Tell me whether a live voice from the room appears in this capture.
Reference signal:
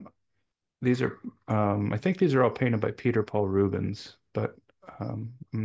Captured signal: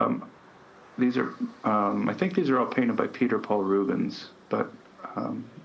No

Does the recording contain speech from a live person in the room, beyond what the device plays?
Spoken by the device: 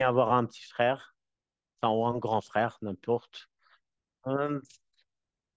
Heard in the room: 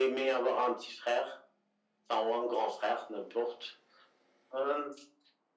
No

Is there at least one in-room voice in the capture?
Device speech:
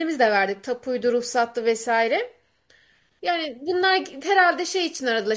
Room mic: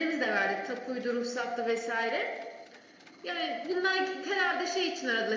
No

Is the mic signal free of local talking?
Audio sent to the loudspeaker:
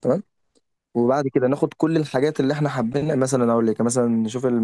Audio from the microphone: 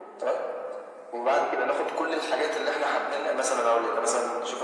Yes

